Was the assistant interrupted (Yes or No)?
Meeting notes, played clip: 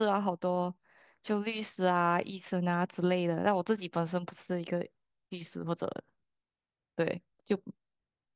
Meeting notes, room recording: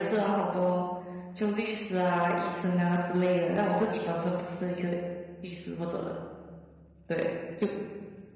No